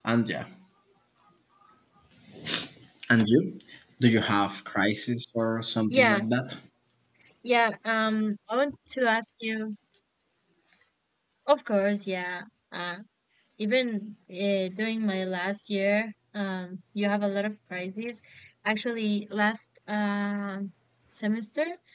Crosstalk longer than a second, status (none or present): none